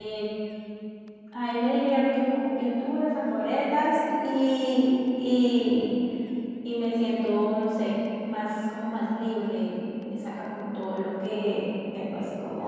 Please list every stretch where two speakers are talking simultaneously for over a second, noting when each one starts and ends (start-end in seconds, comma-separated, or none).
none